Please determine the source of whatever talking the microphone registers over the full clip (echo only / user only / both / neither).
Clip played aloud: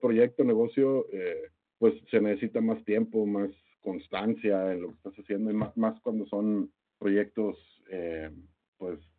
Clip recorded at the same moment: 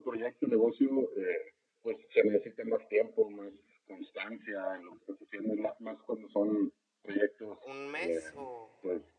both